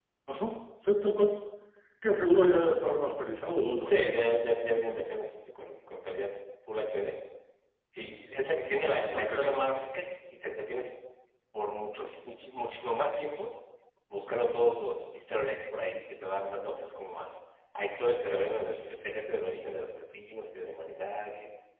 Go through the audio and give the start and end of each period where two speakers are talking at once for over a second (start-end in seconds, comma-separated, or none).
none